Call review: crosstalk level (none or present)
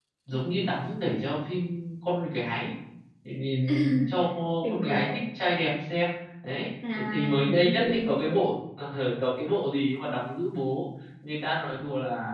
present